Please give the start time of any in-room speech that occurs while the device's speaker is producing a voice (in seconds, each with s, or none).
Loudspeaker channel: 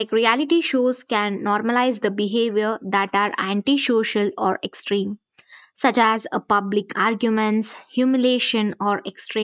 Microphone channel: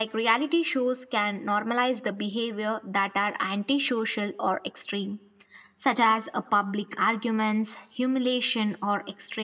none